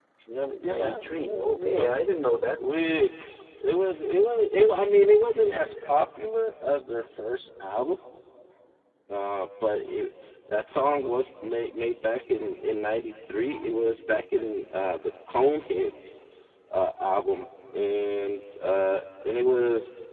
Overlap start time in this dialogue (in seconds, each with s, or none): 0.6 s